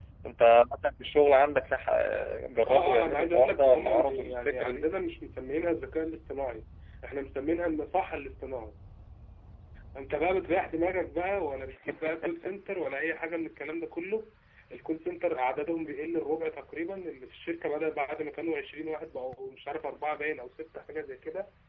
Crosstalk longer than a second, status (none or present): present